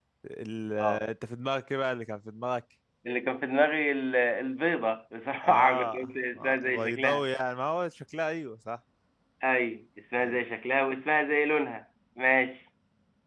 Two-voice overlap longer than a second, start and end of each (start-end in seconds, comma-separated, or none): 5.4-7.2